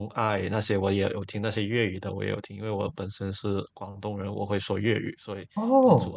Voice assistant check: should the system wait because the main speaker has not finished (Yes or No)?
No